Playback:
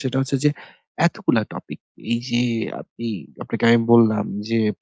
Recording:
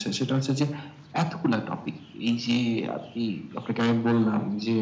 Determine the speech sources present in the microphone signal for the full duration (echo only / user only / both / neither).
echo only